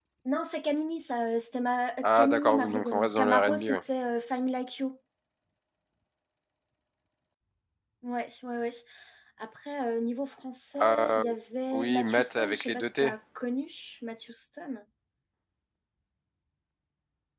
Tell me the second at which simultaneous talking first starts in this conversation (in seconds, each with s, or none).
2.0 s